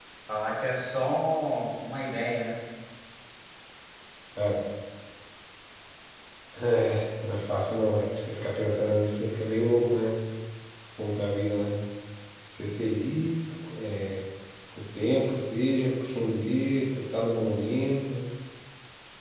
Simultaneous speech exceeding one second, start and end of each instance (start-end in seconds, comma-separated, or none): none